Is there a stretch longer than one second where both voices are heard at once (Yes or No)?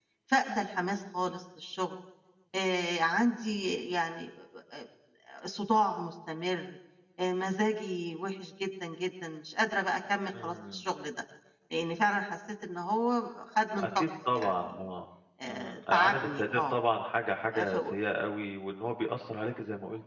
Yes